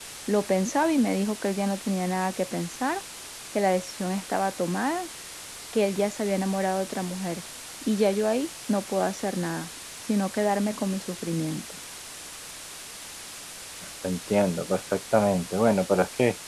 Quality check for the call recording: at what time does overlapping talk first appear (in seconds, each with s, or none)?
none